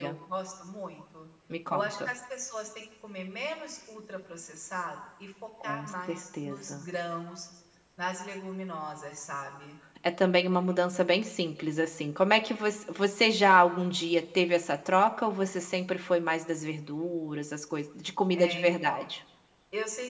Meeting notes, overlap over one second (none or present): present